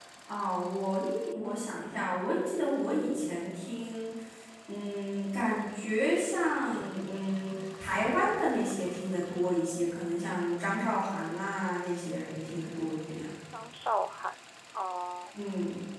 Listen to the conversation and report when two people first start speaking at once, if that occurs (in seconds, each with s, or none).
none